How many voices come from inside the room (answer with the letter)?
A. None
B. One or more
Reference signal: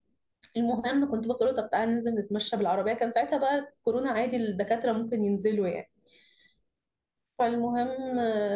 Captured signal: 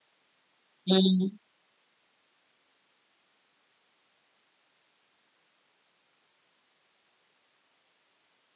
B